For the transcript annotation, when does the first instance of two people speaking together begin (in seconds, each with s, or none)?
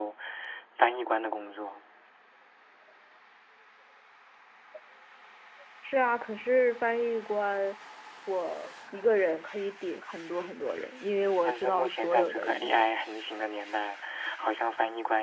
11.4 s